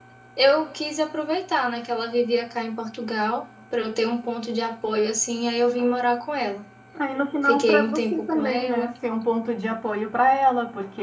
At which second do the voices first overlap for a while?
7.5 s

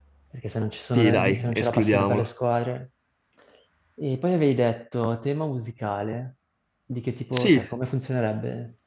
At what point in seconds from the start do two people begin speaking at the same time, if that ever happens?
0.9 s

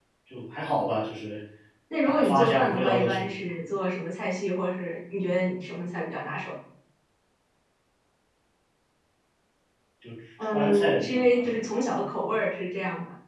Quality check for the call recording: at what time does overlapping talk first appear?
2.0 s

